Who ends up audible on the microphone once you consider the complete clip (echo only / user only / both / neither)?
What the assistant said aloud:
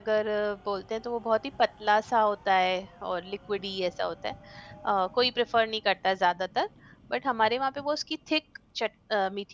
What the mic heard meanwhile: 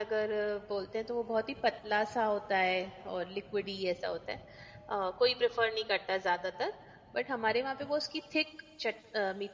echo only